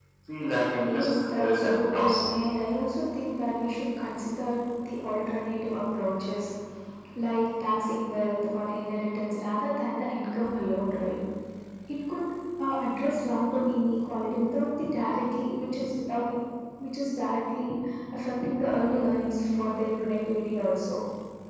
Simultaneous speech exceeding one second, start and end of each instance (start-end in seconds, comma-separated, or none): 0.8-2.2